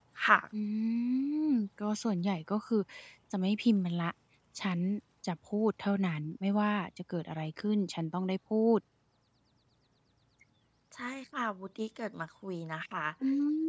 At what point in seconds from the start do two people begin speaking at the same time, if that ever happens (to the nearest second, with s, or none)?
none